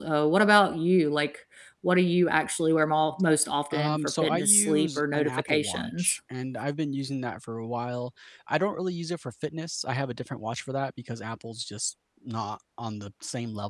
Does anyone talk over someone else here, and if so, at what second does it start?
3.7 s

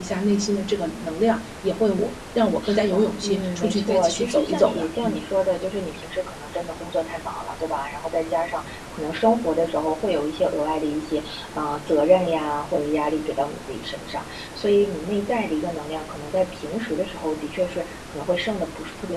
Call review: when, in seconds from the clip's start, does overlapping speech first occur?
2.6 s

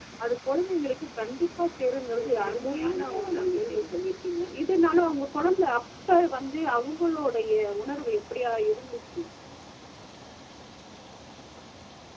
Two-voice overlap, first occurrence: 2.2 s

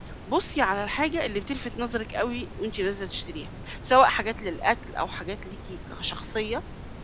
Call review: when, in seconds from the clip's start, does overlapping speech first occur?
none

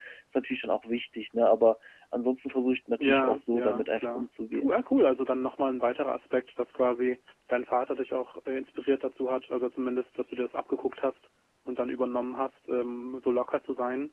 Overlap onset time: 3.0 s

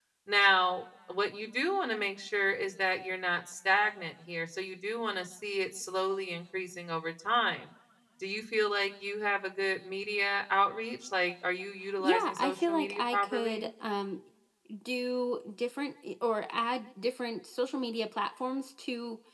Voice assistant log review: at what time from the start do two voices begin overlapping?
12.0 s

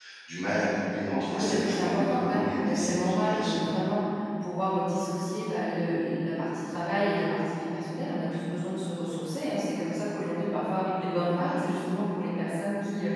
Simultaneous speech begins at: 1.3 s

